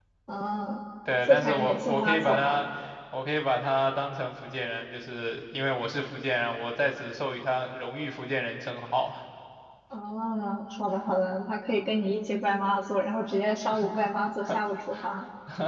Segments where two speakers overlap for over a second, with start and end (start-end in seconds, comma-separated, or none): 1.3-2.6